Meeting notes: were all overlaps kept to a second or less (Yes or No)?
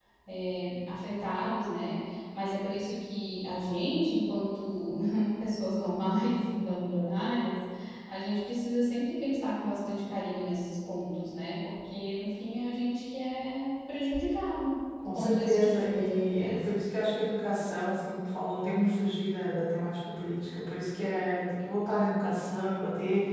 No